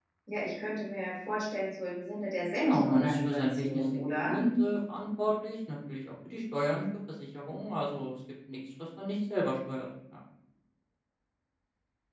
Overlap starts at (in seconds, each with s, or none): 2.6 s